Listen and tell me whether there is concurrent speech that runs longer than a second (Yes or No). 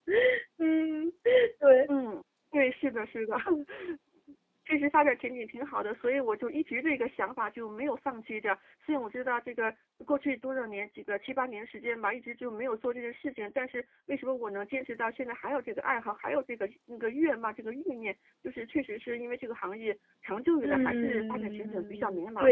Yes